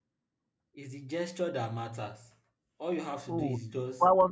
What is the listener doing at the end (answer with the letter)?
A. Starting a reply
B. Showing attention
A